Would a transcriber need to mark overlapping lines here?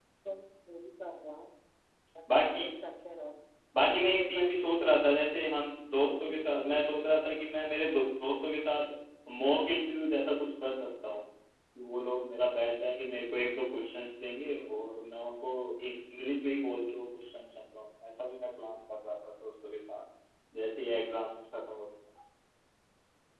Yes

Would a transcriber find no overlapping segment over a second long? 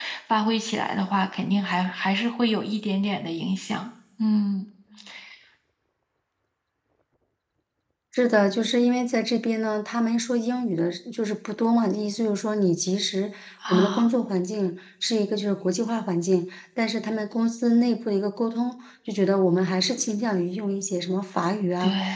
Yes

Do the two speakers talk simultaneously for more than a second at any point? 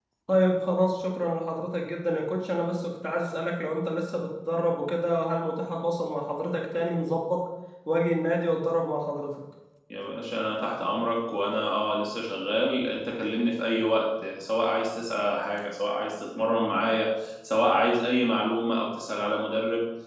No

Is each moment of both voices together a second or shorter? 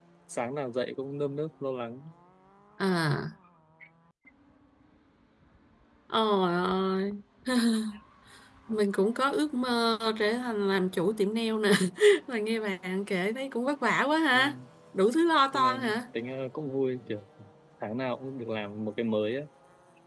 Yes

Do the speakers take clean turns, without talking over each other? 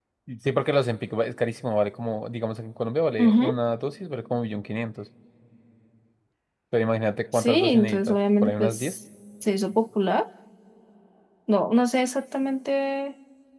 No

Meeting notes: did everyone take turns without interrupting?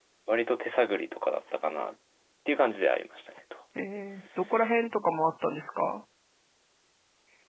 Yes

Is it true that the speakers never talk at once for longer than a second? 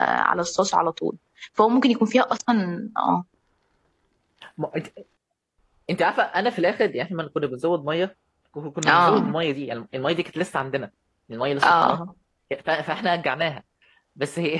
Yes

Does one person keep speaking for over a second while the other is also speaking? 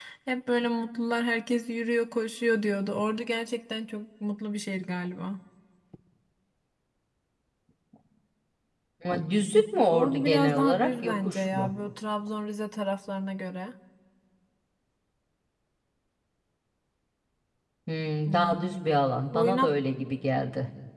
Yes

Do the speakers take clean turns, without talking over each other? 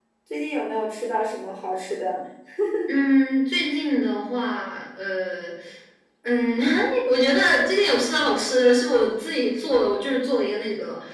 Yes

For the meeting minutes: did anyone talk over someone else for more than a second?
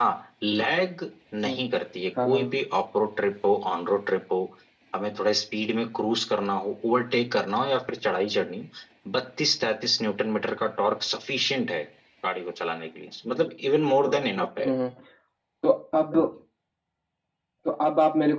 No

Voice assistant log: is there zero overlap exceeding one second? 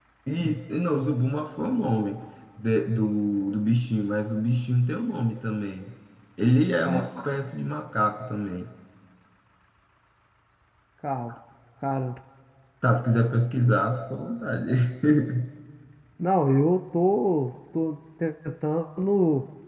Yes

